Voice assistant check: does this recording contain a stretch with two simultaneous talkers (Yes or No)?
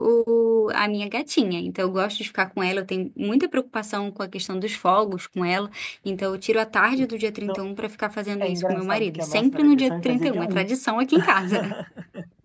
Yes